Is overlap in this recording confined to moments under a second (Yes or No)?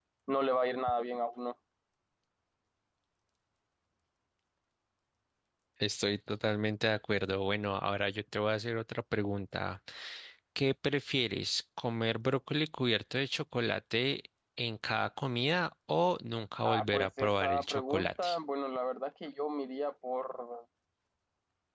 No